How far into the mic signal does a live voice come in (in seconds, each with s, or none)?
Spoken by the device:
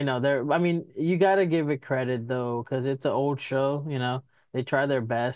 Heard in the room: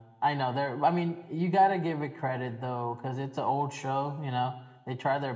none